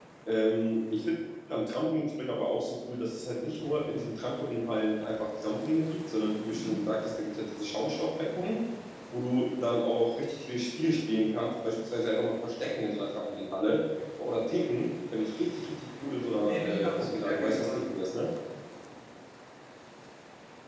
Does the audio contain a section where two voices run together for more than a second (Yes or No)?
Yes